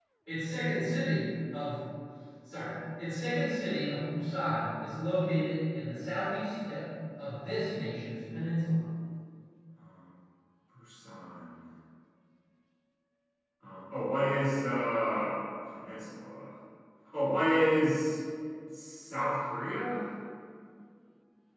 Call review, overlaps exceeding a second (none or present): none